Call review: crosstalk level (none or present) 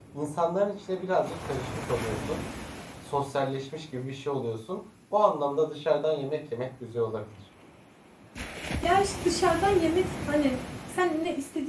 none